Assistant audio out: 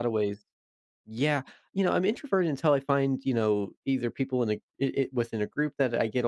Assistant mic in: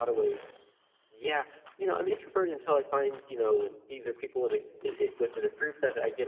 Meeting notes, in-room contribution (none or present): none